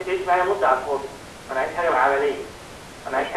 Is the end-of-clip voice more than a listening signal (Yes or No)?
Yes